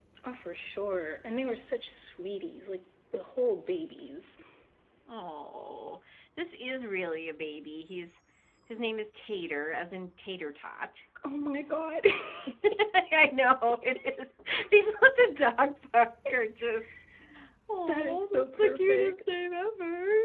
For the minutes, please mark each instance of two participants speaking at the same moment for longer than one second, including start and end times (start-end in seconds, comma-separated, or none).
17.9-19.3